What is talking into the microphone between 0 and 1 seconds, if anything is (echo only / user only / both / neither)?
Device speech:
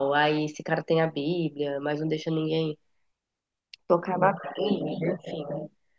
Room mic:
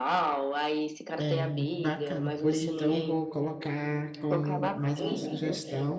echo only